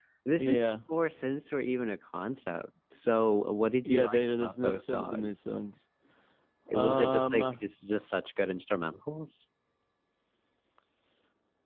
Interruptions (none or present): present